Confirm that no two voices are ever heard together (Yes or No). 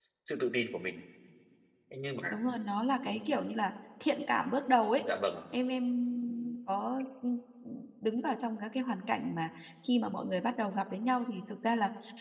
Yes